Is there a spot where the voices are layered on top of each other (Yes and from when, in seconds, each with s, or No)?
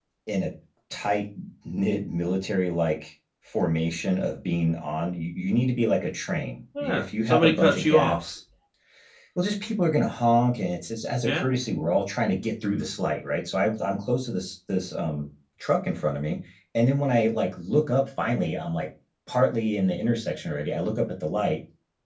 Yes, from 6.8 s